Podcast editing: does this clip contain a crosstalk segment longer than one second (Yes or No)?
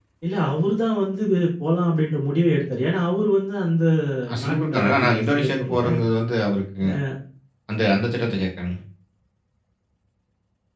Yes